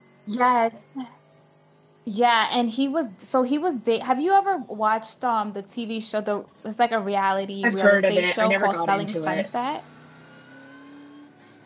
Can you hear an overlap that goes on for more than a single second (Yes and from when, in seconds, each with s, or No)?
Yes, from 7.6 s